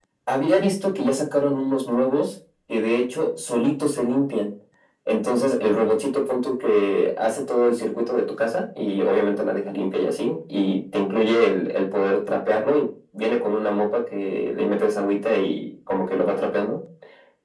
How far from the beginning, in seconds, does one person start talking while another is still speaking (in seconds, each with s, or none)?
none